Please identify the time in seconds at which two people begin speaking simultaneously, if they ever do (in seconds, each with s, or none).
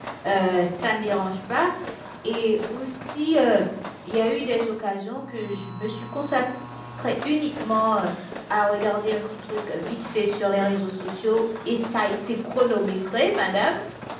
none